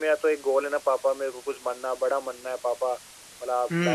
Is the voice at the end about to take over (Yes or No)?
No